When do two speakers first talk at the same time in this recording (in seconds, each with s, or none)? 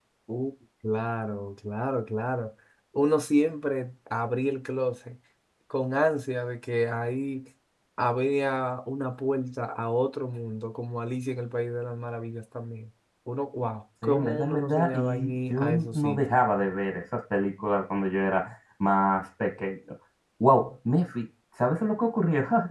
14.0 s